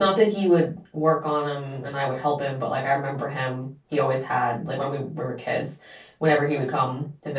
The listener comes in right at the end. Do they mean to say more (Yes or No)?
No